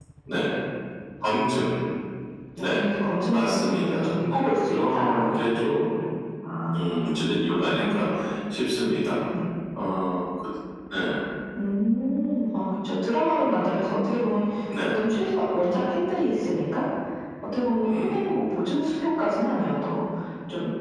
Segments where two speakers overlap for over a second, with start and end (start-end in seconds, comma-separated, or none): 3.3-5.5, 6.8-8.1